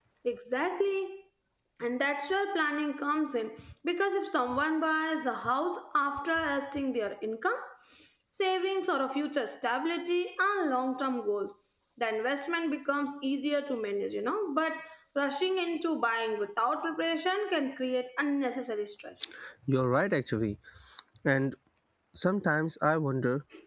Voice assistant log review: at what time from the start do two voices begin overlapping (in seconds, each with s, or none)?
none